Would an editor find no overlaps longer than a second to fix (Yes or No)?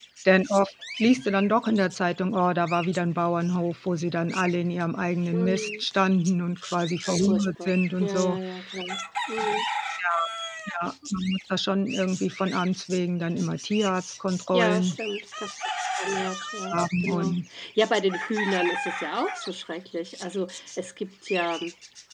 No